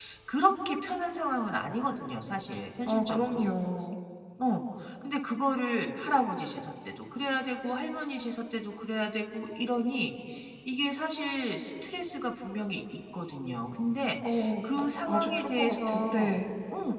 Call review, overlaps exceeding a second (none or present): present